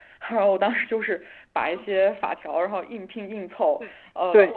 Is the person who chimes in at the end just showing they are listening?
Yes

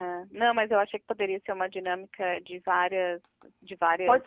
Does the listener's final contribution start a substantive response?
Yes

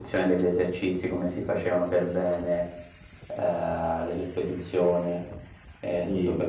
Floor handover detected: No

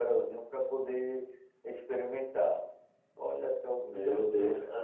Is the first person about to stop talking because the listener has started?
Yes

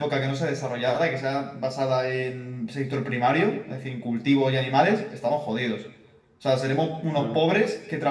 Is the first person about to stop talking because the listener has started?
No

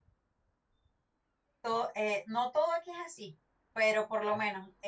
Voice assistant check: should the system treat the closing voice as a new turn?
No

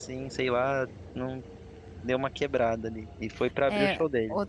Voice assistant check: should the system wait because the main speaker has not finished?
No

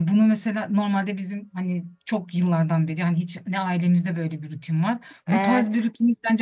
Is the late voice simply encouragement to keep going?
Yes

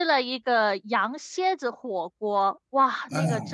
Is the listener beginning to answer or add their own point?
No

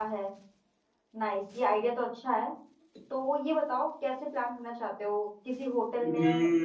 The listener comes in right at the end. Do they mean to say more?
Yes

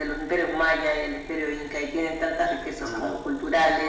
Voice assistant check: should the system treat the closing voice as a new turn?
No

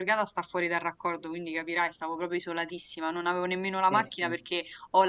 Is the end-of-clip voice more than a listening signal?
No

